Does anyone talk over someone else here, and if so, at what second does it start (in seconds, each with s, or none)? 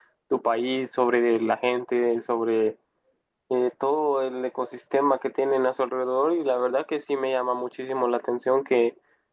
none